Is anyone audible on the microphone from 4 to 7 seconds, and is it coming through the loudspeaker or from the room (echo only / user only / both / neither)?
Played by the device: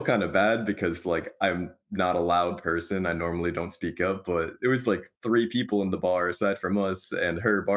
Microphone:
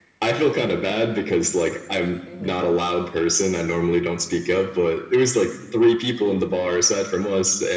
echo only